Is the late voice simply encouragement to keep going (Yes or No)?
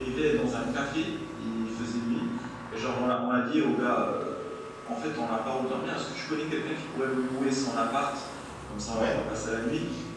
Yes